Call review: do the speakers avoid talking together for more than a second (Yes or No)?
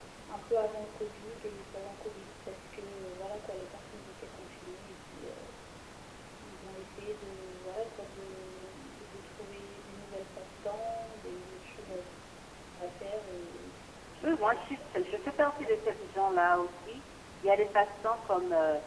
No